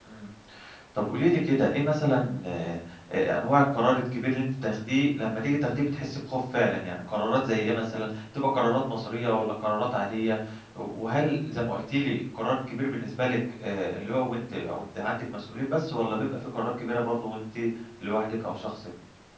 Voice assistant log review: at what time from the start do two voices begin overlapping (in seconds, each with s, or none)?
none